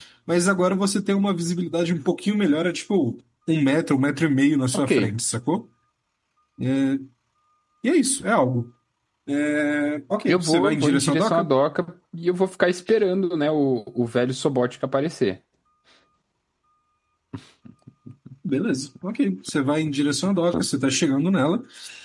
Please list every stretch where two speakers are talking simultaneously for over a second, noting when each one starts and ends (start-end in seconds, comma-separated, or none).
10.3-11.5